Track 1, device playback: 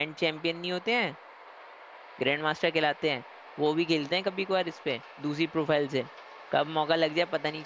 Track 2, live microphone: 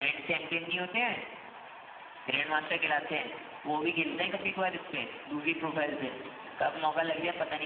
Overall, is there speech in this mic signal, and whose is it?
echo only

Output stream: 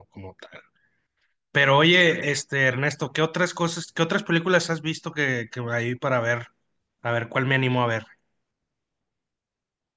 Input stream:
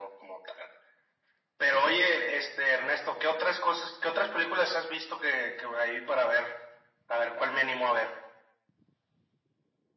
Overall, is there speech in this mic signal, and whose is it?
echo only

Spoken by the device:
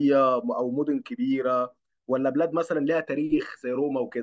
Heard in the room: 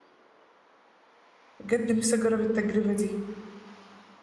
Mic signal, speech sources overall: user only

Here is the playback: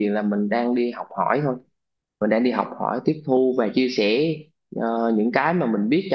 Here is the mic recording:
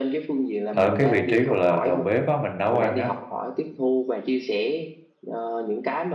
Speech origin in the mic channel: both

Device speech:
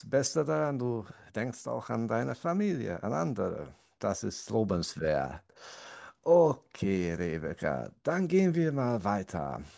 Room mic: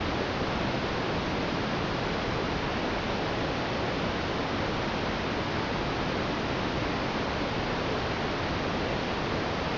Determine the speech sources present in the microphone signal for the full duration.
neither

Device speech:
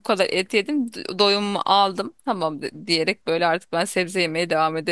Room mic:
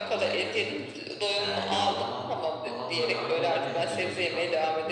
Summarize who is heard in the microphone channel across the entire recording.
both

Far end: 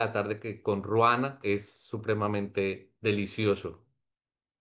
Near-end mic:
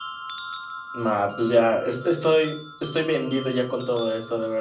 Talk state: user only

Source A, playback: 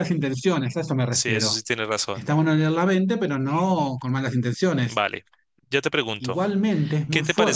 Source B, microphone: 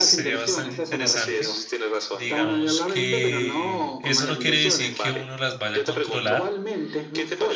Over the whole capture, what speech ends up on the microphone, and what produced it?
both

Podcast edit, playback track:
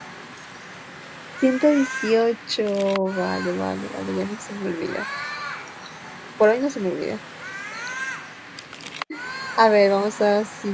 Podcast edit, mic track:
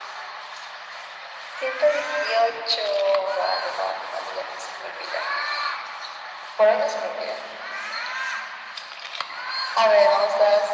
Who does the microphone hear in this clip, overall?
echo only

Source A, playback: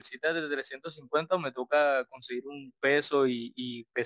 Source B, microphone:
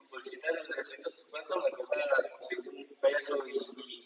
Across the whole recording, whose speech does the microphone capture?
echo only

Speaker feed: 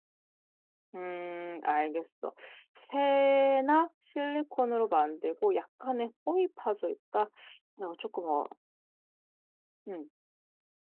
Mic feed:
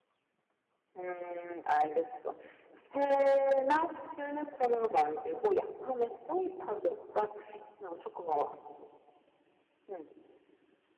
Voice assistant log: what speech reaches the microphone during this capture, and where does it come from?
echo only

